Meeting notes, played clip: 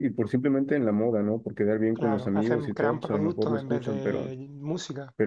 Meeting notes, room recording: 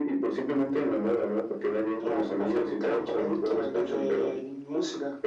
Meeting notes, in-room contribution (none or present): none